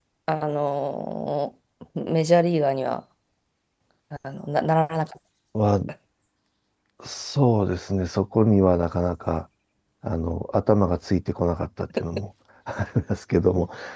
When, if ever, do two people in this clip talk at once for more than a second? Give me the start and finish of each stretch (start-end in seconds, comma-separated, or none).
none